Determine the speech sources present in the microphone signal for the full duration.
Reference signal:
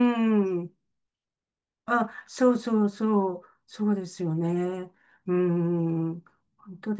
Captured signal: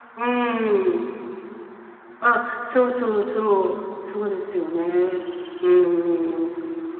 echo only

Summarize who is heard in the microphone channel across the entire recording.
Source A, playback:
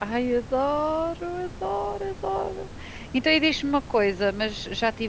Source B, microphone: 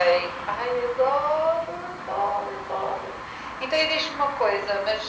echo only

